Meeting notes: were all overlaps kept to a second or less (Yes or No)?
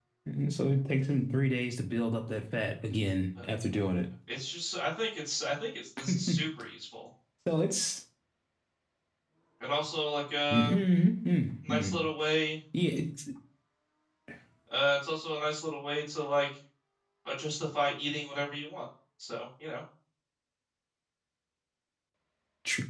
Yes